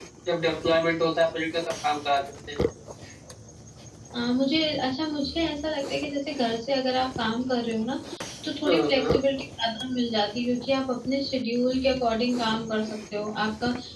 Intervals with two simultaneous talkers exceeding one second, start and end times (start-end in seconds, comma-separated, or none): none